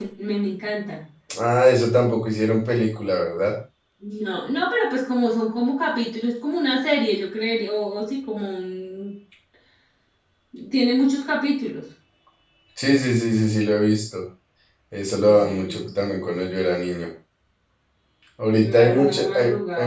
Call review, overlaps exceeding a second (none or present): present